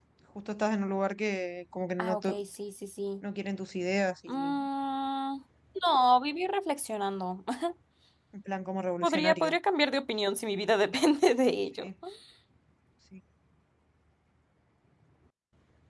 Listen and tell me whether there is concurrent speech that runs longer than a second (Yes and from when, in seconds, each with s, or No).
No